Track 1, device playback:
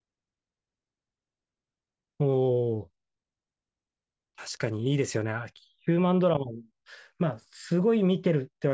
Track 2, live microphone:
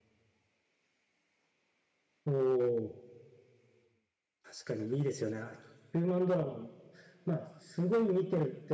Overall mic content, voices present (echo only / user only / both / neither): echo only